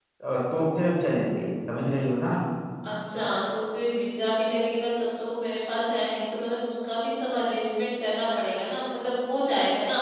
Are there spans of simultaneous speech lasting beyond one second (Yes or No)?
No